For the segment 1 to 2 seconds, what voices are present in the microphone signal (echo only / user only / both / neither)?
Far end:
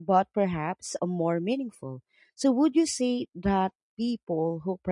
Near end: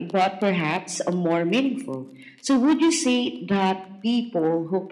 echo only